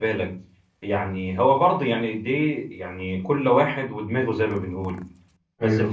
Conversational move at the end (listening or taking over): listening